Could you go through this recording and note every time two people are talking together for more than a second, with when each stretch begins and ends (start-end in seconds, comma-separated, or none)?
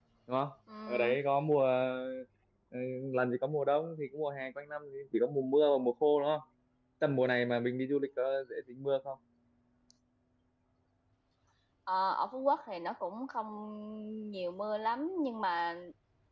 none